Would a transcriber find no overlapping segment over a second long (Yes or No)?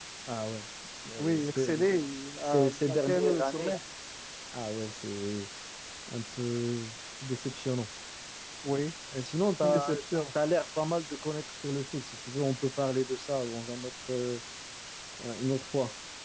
No